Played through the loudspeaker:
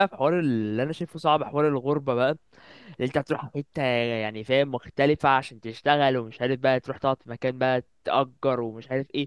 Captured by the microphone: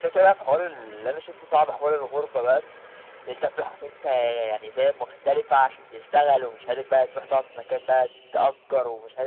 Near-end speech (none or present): none